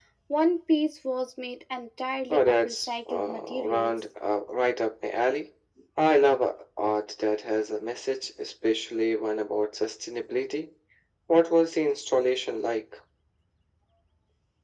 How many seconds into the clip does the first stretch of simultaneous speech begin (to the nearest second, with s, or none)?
2 s